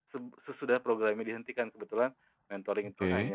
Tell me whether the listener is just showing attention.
Yes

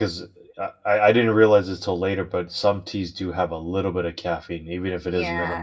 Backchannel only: No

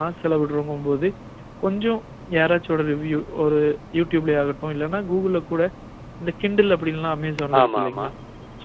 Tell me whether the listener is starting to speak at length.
No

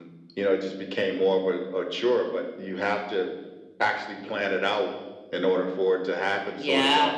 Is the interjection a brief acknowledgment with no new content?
No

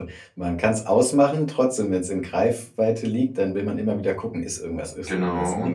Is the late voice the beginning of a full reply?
Yes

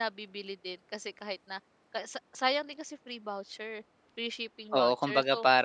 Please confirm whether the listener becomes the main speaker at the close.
Yes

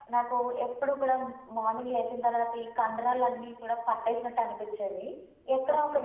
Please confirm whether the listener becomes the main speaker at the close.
No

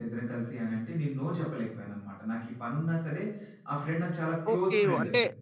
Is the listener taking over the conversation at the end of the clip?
Yes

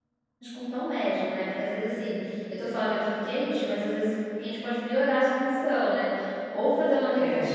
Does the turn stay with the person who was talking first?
Yes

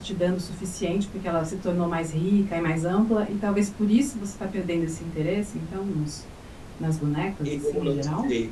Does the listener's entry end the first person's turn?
Yes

